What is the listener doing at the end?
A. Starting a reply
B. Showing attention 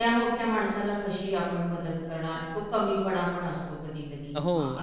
A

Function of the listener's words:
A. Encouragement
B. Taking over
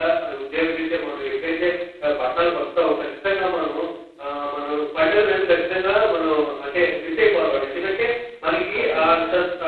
A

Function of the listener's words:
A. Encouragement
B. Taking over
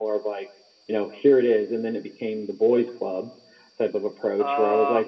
A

